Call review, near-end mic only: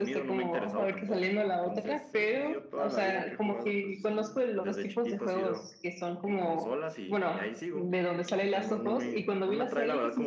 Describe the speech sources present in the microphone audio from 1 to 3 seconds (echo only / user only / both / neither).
echo only